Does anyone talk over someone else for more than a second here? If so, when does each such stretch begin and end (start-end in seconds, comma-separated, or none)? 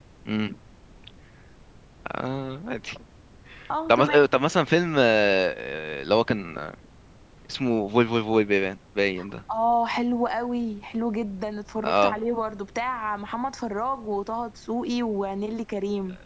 none